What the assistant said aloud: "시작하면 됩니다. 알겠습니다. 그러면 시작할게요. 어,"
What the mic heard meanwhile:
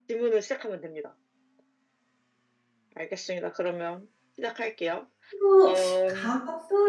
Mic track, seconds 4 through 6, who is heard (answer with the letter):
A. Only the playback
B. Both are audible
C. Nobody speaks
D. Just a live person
B